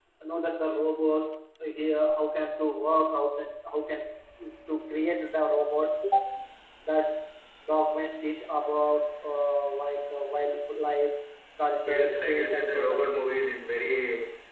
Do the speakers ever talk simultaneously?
Yes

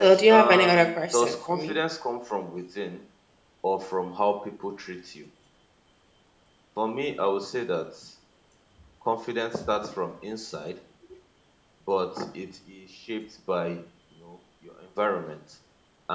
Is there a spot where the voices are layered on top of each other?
Yes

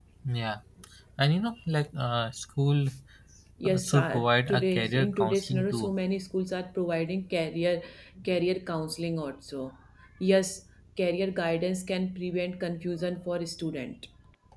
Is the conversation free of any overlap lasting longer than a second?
No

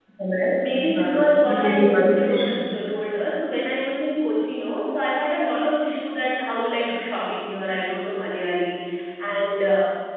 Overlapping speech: Yes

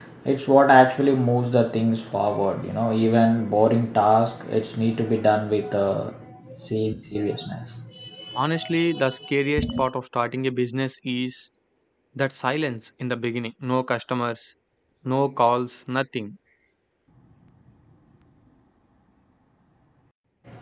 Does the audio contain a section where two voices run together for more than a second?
No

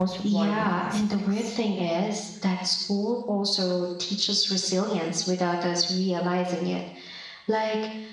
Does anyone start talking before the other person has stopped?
Yes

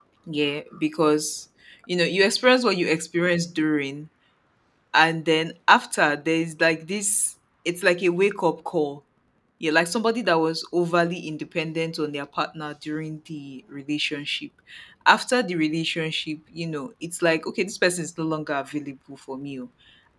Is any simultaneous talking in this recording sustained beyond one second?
No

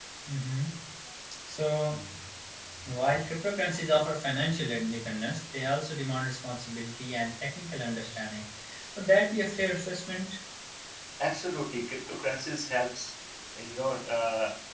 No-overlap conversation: Yes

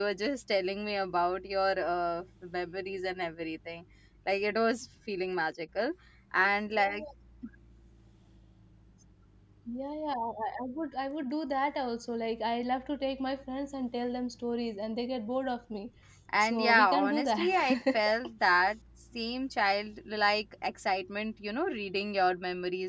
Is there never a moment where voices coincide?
No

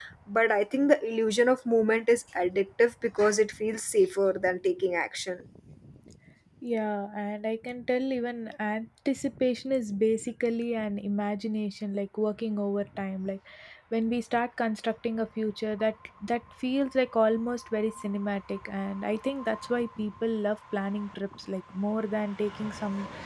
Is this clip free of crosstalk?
Yes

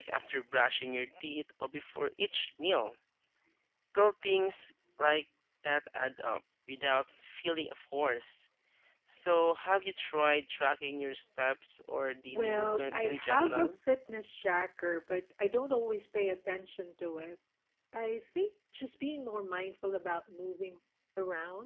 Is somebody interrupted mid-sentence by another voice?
Yes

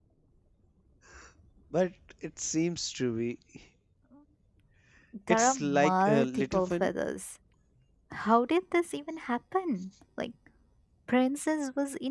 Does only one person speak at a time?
No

